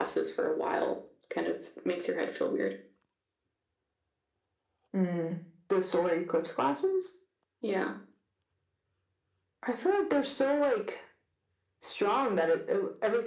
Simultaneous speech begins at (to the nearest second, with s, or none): none